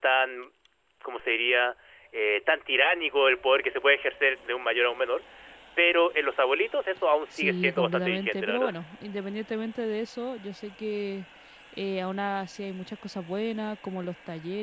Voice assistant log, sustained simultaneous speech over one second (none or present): present